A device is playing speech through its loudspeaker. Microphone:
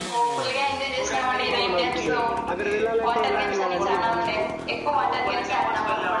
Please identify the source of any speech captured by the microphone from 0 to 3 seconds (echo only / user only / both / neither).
both